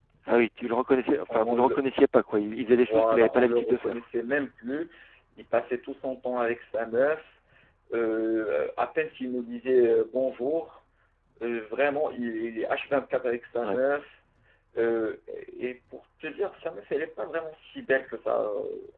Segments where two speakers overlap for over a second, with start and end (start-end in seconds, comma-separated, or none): 2.7-4.0